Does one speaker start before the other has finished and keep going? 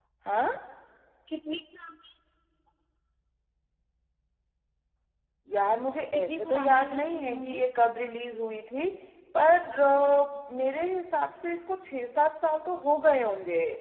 Yes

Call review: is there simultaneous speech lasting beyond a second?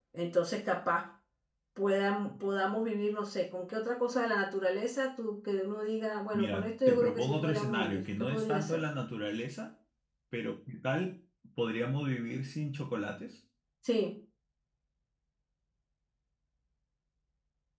Yes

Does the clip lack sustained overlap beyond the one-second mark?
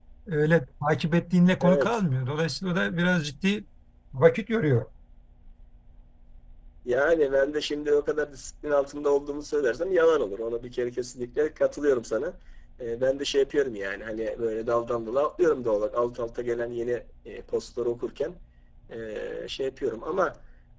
Yes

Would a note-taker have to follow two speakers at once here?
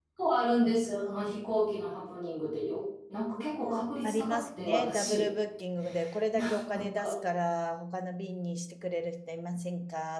Yes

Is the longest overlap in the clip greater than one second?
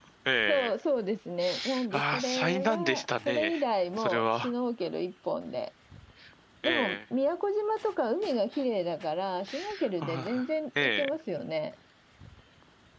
Yes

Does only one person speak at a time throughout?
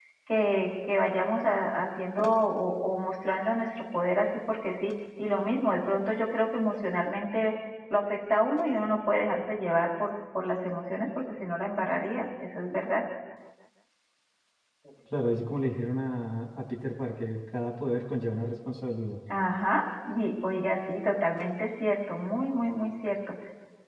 Yes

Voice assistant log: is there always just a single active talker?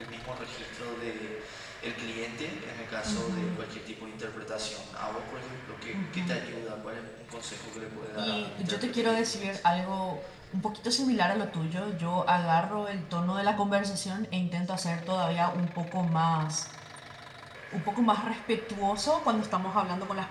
No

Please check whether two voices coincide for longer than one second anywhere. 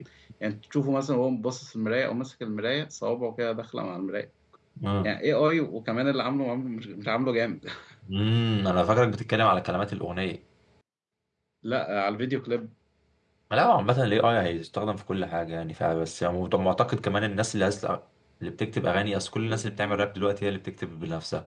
No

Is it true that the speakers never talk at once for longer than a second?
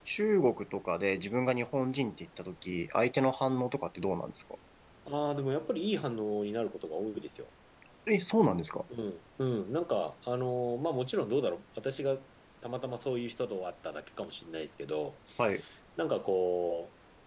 Yes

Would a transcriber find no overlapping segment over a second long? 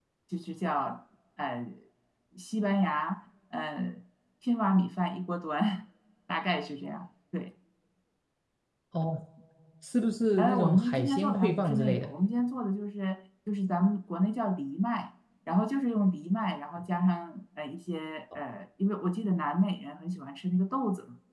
No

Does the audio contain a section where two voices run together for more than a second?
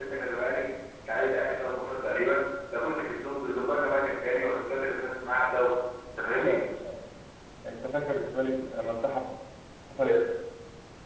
No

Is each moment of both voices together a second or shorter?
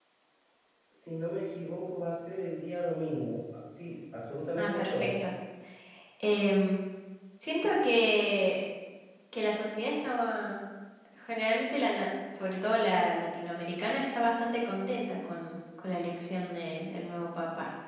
Yes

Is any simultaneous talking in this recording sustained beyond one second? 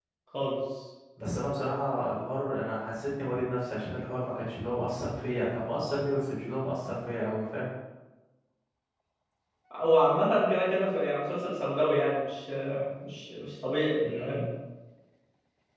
No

